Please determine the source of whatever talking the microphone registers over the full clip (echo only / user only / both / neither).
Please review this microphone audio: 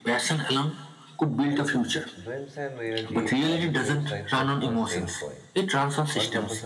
both